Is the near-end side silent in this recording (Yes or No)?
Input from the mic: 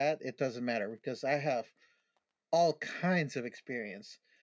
Yes